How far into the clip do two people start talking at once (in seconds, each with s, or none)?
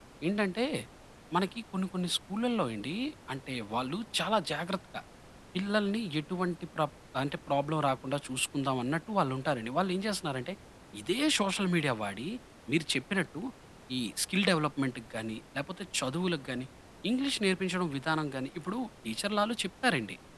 none